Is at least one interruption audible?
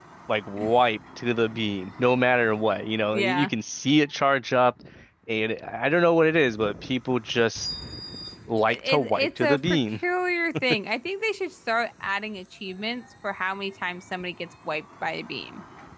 Yes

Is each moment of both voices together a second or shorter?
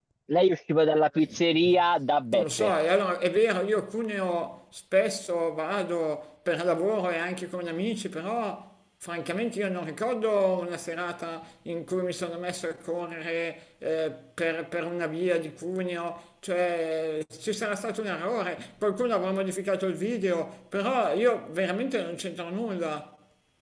Yes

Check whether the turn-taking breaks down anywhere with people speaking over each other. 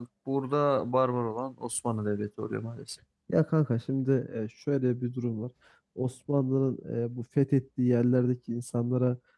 No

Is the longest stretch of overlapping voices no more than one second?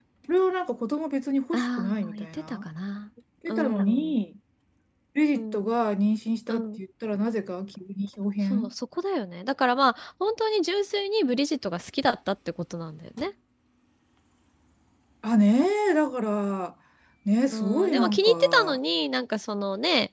No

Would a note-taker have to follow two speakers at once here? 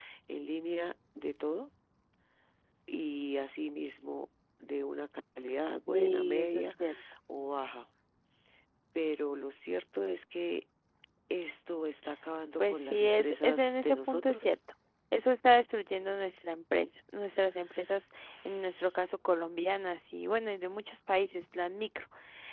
Yes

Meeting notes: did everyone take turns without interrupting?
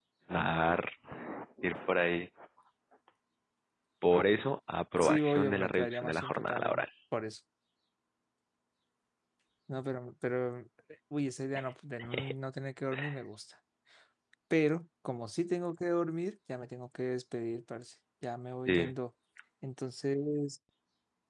No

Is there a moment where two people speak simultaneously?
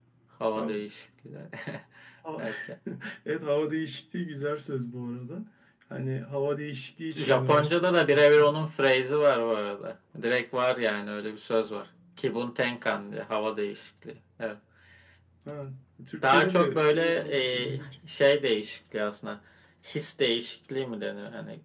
Yes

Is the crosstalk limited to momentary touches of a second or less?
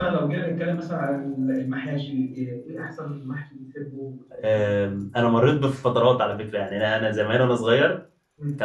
Yes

